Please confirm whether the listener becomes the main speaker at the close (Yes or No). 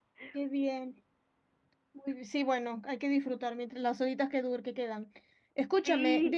No